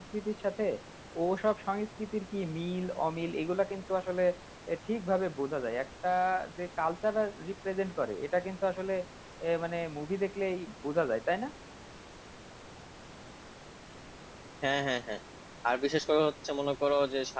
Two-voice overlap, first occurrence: none

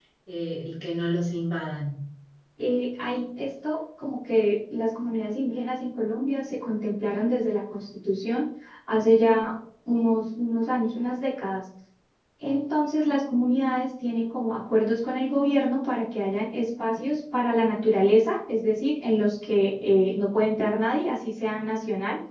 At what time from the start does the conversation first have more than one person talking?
none

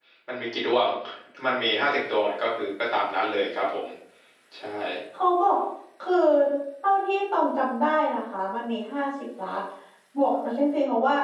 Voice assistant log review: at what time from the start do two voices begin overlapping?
none

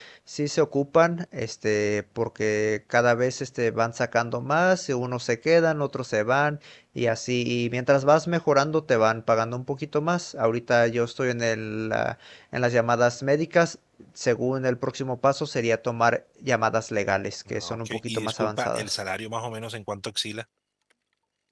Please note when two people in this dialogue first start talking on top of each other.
17 s

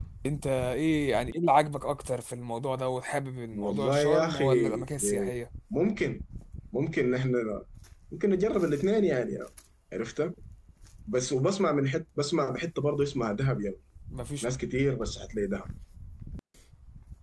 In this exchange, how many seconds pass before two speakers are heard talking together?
4 s

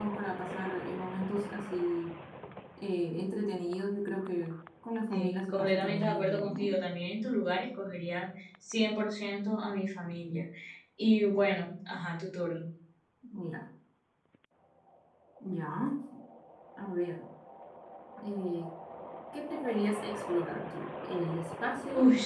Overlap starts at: 5 s

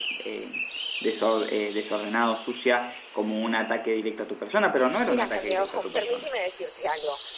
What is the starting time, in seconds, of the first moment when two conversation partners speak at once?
5 s

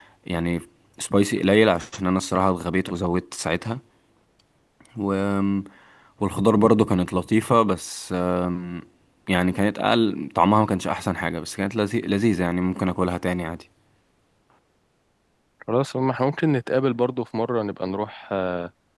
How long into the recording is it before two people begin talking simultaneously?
none

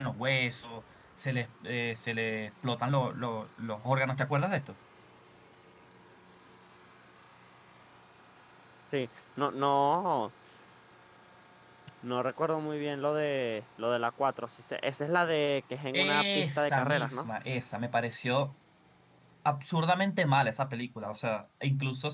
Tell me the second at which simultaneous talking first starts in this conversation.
16 s

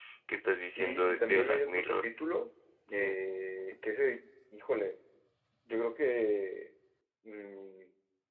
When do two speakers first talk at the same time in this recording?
1 s

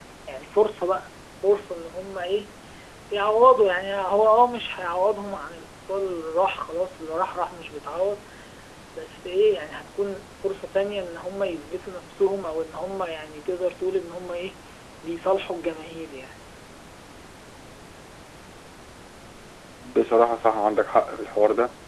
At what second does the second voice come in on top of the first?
none

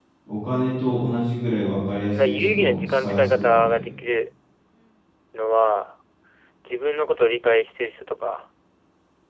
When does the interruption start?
2 s

